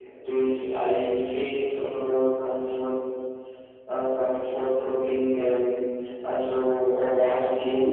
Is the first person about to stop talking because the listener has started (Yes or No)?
Yes